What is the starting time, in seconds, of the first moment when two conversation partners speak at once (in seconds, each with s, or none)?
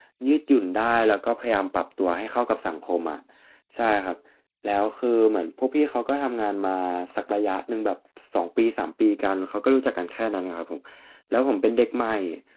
none